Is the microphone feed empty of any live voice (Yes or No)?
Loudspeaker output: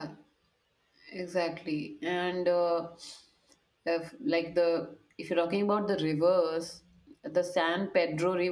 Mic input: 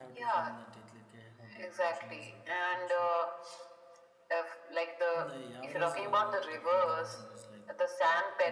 No